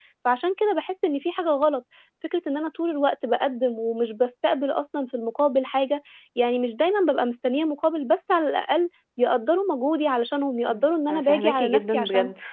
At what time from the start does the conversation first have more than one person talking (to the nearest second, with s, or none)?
11 s